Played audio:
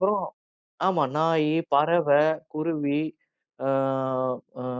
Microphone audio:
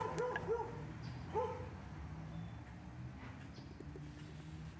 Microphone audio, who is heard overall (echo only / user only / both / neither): neither